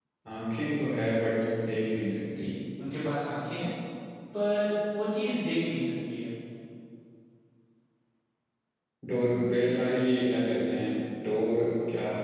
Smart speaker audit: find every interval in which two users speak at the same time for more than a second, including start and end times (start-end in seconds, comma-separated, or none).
none